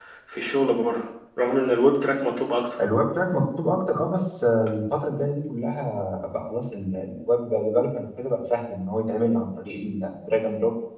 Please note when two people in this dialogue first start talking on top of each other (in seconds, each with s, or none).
none